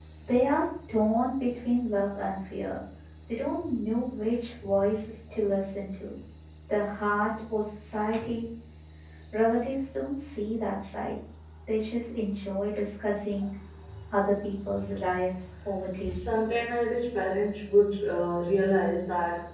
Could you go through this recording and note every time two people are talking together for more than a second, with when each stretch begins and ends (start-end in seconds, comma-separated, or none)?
none